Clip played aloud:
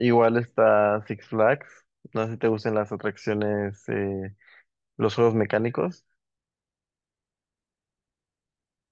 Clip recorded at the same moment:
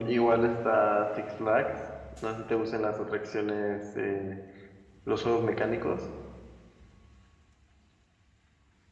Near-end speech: none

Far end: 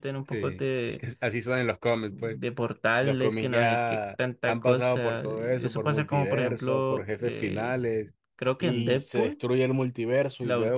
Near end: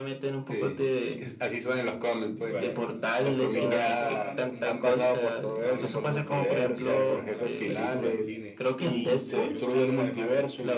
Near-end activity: present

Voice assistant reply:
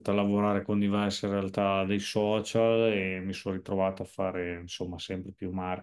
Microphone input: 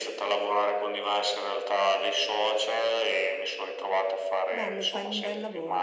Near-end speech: present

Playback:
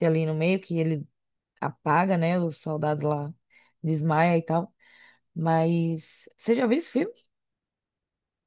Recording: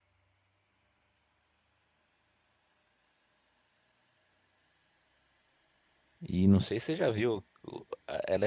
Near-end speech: present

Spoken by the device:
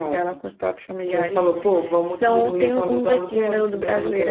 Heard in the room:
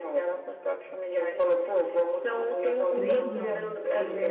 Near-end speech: present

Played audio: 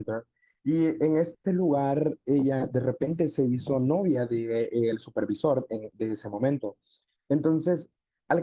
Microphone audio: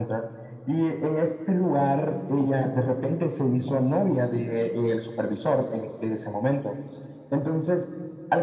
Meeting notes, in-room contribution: none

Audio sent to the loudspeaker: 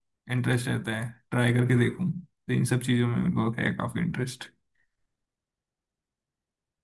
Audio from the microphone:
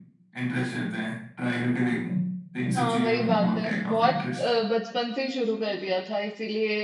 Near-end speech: present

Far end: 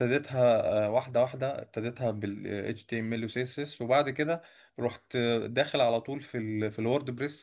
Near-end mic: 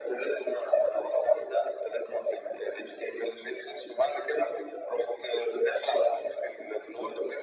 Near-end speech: none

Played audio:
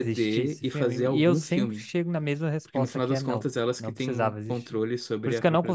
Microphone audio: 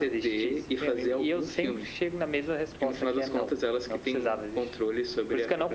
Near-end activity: none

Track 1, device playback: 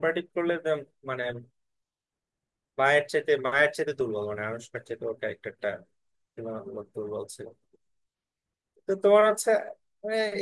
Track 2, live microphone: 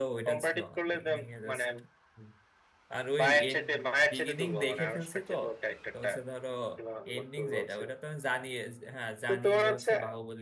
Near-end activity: present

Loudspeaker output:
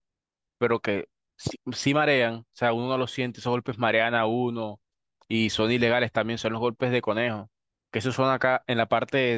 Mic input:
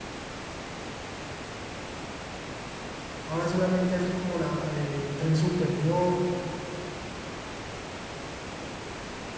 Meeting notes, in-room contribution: present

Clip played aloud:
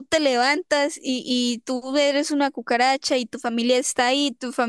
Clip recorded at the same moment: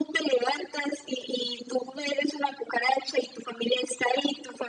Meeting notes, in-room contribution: none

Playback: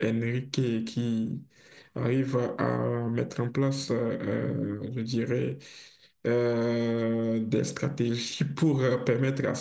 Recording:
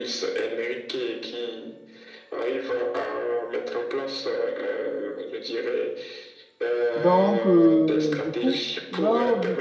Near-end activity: present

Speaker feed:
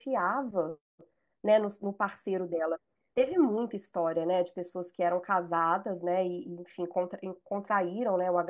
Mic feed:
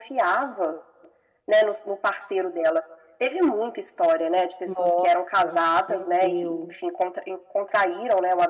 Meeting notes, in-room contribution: present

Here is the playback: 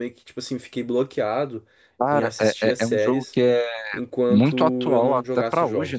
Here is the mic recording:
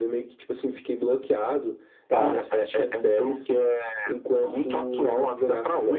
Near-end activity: present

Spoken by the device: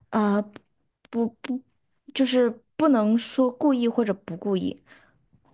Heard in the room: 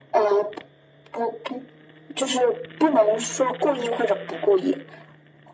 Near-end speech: none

